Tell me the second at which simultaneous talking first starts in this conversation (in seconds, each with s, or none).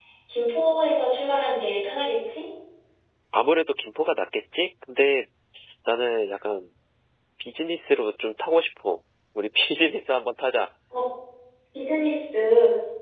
none